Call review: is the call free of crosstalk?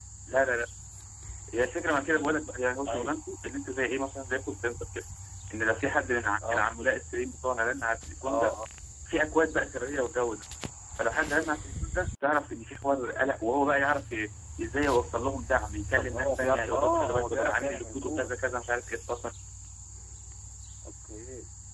No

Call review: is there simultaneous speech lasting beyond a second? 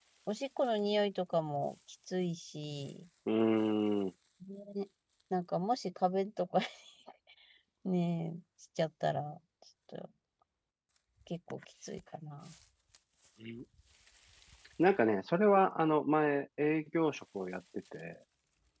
No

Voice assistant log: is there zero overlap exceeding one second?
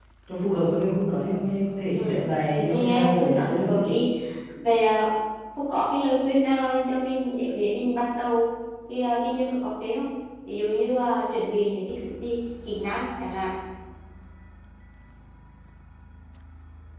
No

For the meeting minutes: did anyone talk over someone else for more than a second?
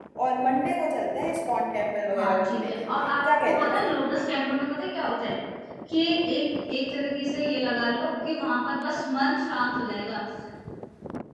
Yes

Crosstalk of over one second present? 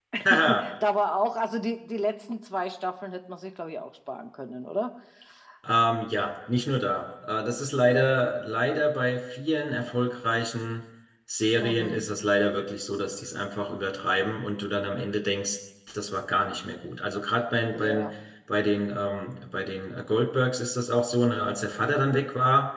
No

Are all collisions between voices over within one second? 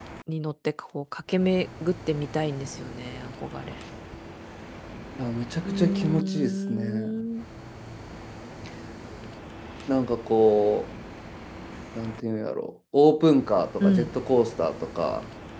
No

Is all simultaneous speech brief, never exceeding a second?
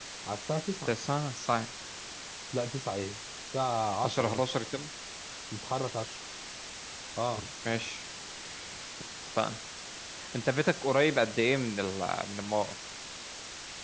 Yes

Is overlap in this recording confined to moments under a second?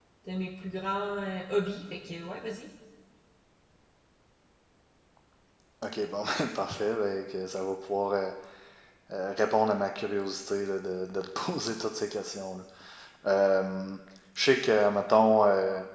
Yes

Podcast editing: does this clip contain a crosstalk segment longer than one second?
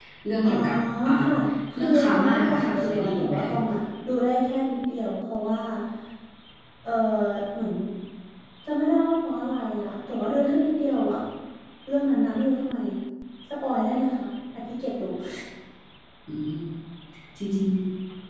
Yes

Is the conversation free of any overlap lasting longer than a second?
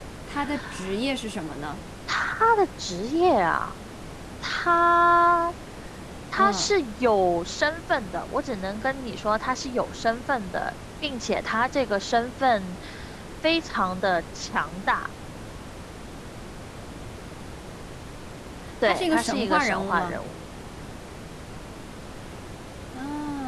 No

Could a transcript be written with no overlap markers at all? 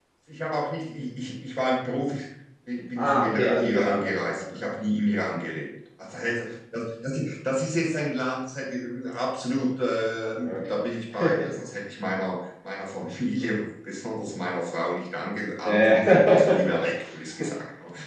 No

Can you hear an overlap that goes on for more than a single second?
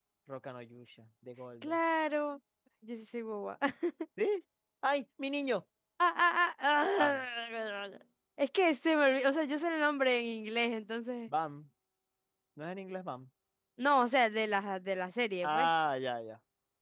No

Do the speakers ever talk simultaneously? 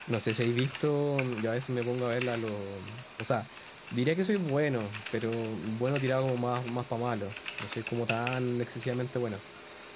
No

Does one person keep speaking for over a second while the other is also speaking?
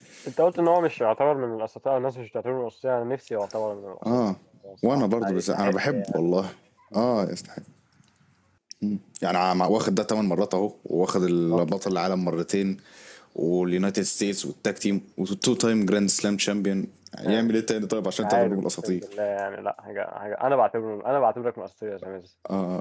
Yes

